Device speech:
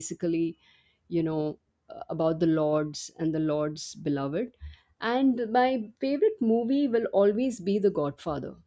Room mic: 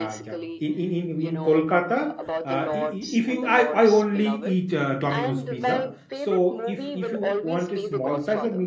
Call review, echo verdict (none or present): present